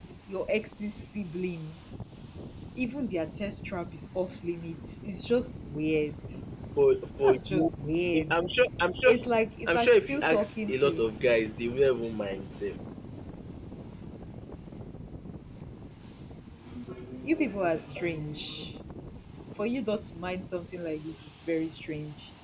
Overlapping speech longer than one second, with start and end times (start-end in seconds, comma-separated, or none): 9.7-11.1